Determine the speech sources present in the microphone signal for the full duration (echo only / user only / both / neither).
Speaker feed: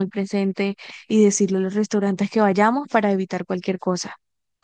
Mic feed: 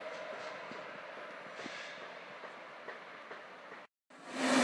neither